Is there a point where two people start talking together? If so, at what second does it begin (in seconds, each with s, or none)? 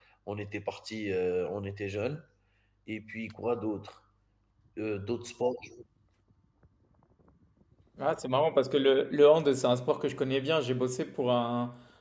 none